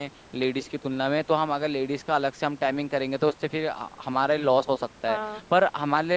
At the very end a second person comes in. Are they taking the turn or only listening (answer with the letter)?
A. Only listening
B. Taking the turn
A